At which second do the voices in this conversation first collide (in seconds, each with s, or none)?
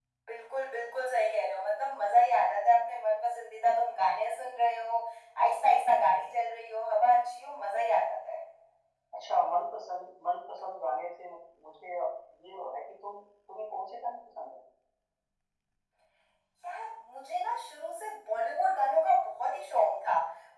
none